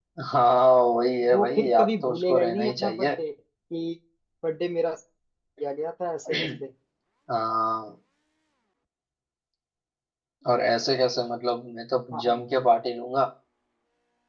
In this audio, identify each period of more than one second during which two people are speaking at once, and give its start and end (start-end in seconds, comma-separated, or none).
1.3-3.2